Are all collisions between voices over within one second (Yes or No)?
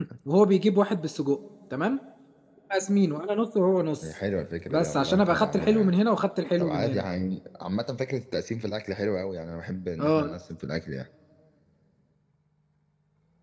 No